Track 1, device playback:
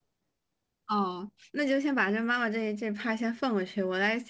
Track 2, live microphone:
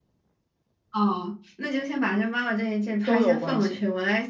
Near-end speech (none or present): present